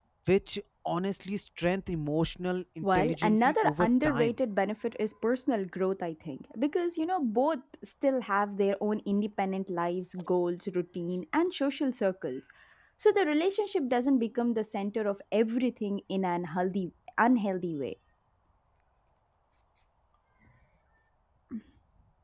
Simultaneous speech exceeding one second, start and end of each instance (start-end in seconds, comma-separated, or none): 2.8-4.3